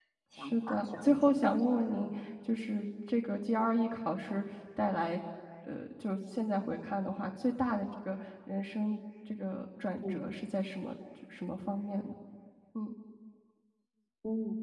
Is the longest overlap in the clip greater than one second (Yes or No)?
Yes